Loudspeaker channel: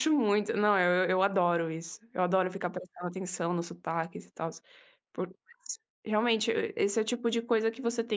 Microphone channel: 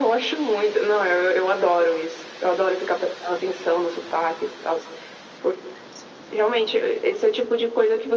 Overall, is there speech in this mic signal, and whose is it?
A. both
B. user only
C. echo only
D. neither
C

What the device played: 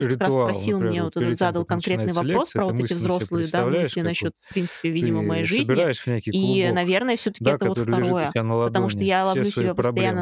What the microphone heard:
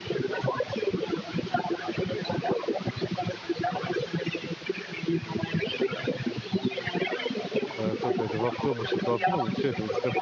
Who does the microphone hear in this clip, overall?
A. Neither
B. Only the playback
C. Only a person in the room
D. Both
D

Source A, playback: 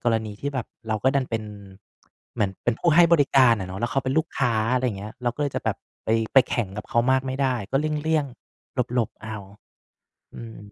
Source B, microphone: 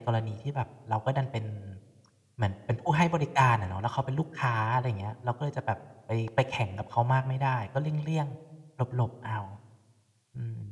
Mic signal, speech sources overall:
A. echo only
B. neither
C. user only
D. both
A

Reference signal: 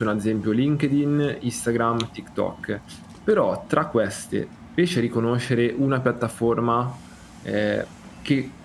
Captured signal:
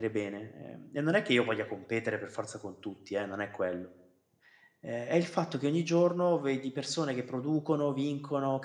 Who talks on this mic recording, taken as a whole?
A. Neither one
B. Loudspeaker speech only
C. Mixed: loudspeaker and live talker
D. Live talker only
D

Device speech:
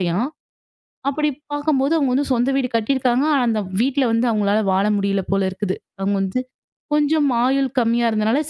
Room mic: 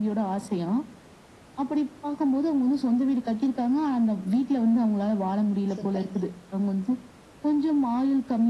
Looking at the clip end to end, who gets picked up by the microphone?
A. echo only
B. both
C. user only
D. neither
B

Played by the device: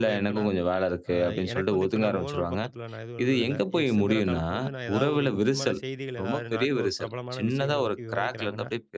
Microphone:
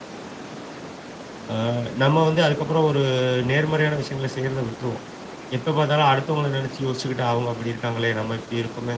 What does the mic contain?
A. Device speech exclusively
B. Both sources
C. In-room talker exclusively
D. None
C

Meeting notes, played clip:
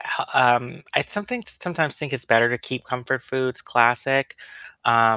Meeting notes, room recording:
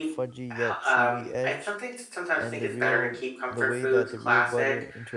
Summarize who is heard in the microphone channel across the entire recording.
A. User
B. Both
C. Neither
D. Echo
B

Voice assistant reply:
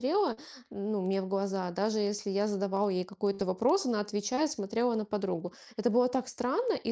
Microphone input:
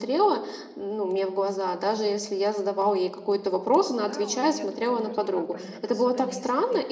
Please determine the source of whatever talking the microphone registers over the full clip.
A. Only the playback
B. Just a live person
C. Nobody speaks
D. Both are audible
D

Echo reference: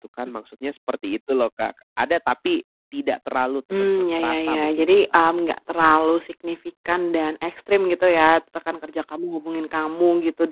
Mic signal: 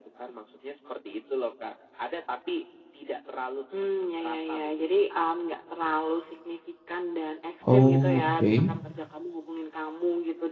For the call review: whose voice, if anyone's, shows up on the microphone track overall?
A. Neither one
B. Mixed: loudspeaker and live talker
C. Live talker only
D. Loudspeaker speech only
B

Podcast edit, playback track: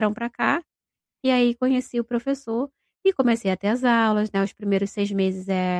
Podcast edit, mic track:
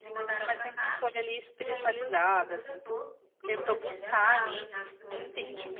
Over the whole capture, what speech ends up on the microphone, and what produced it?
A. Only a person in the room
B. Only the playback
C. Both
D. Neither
C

